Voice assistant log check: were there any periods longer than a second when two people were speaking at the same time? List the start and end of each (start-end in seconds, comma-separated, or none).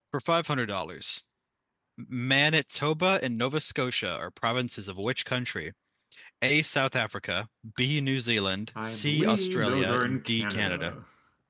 8.8-10.9